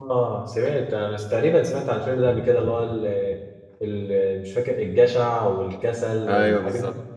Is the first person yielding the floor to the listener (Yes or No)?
Yes